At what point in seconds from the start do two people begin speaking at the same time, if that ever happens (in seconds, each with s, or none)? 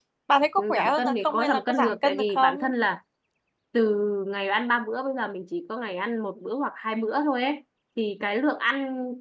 0.6 s